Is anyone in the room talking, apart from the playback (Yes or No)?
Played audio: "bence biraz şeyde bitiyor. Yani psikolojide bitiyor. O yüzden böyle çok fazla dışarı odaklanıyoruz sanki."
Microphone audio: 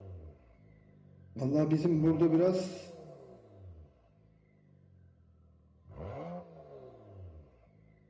Yes